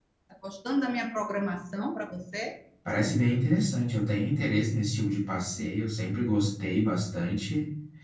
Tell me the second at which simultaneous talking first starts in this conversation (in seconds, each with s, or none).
none